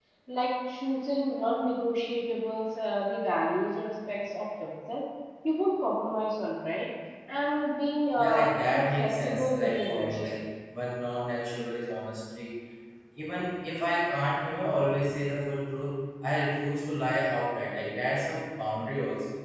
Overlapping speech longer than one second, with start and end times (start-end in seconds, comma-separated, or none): 8.2-10.2